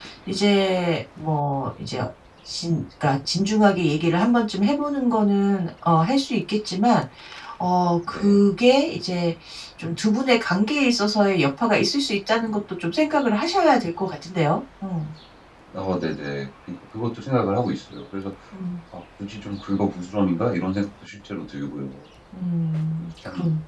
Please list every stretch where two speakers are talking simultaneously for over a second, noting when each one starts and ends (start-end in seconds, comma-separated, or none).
none